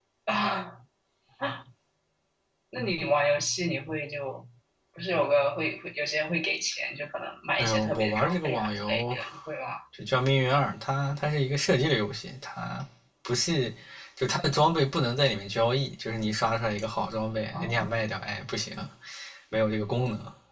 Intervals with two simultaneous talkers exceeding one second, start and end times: 7.6-9.2

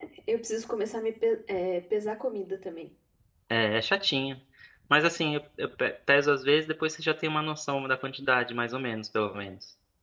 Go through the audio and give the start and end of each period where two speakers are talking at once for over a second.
none

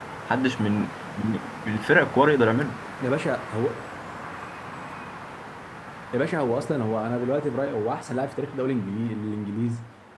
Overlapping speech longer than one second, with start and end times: none

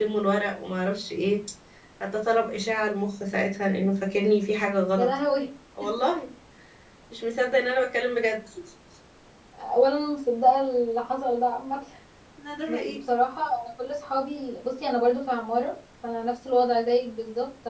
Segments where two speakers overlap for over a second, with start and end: none

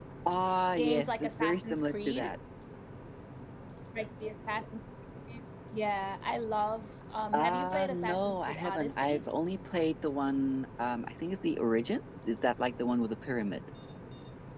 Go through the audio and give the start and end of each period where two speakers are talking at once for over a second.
0.7-2.3, 7.3-9.2

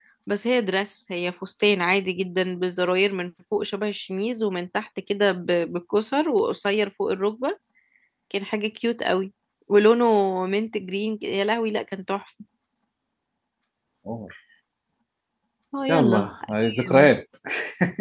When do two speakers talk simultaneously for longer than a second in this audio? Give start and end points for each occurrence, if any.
15.9-17.1

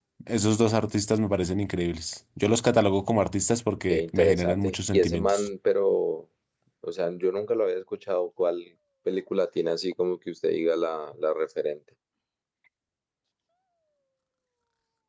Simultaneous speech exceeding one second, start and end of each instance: 3.9-5.5

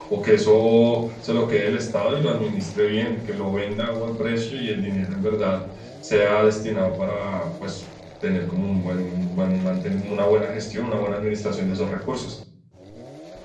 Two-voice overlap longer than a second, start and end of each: none

